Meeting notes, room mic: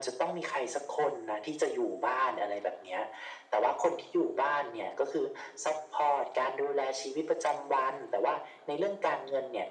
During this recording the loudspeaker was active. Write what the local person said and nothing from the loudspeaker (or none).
none